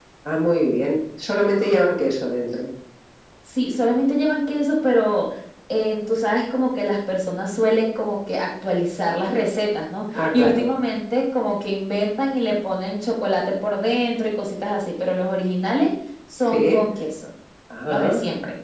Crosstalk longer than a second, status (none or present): none